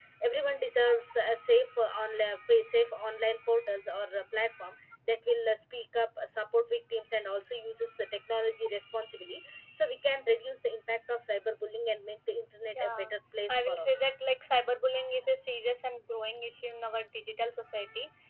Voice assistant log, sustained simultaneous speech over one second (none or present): none